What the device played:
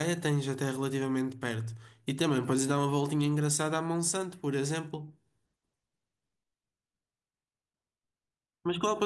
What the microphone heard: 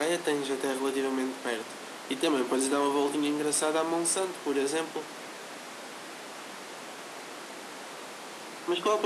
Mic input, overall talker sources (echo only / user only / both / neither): echo only